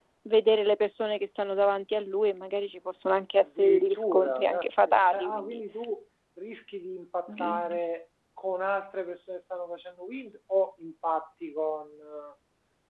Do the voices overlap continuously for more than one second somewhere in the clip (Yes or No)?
Yes